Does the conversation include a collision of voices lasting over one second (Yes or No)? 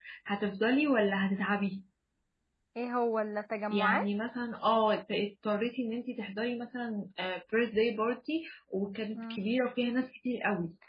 No